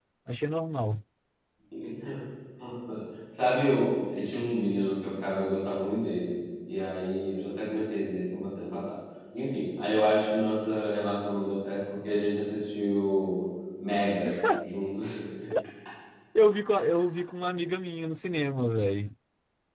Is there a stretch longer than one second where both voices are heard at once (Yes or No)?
No